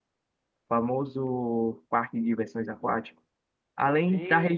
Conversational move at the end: listening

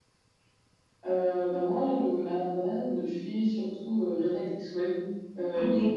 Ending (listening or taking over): listening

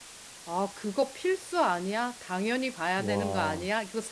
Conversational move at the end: listening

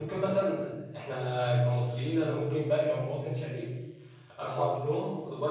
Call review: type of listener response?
listening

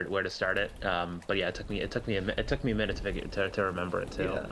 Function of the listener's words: taking over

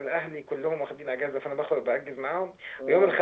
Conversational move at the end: listening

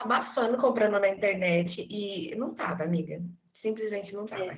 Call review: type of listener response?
listening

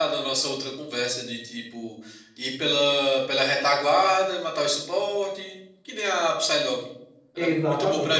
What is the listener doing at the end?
taking over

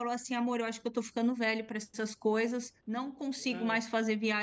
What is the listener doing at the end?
listening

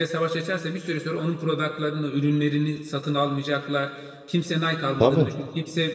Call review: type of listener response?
listening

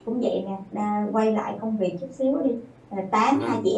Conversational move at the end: listening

